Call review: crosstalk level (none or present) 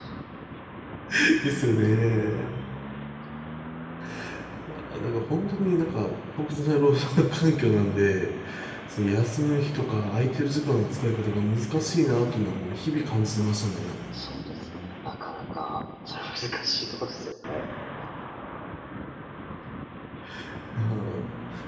none